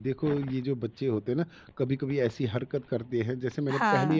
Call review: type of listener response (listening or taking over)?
listening